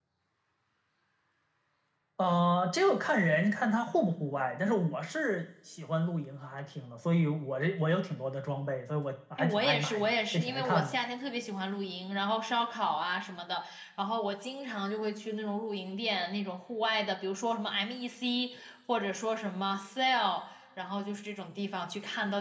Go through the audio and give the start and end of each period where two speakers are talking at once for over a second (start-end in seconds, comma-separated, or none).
9.4-11.0